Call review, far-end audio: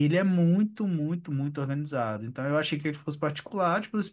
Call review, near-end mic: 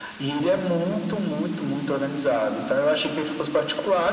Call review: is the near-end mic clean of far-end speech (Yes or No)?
No